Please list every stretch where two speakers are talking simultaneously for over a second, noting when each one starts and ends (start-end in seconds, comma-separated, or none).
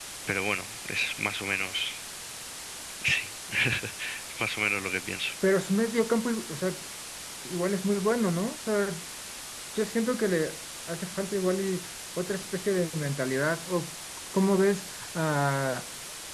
none